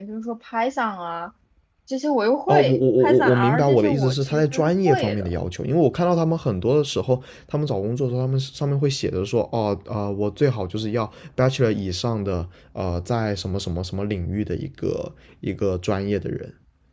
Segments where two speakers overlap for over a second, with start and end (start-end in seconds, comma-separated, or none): 2.5-5.3